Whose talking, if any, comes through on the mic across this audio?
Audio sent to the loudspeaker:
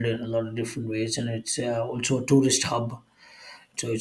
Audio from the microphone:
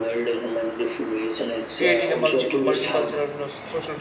both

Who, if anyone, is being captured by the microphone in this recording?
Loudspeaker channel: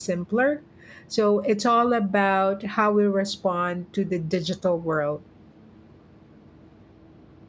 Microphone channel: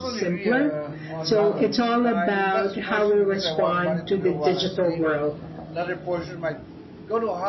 both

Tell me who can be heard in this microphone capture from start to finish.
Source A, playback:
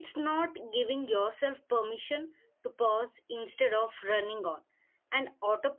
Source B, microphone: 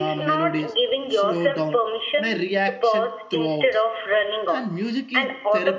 both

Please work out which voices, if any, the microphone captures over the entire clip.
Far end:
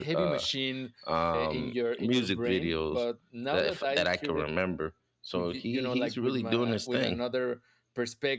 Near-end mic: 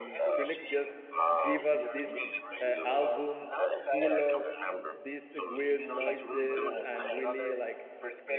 both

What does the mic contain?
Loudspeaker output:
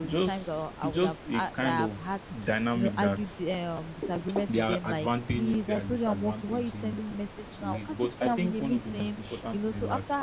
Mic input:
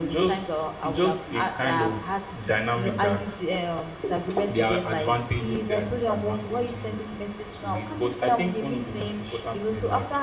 echo only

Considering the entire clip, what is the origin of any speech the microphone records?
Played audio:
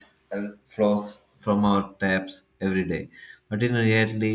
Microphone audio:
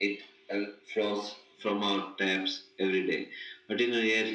echo only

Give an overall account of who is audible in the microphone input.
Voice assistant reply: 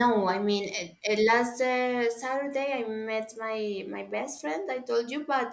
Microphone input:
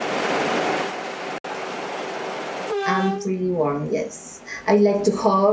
user only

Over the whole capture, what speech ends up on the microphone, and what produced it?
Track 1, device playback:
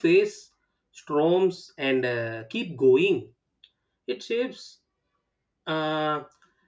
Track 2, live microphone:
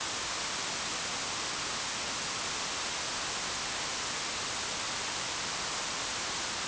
neither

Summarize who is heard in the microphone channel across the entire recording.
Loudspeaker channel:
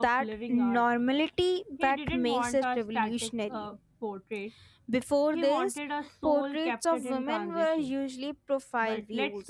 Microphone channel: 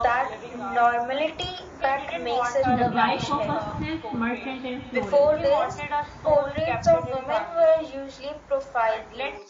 both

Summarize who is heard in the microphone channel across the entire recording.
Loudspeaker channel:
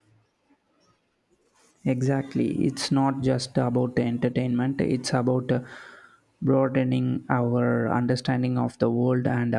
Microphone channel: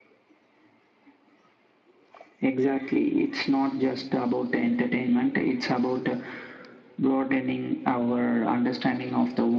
echo only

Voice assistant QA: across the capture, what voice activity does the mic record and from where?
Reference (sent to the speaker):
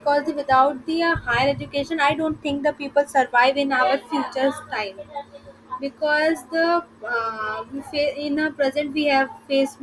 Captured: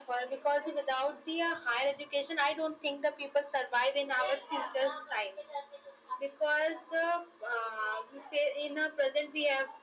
echo only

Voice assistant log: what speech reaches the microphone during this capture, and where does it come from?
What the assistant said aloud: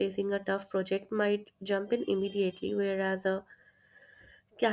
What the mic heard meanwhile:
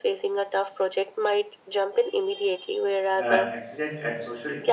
both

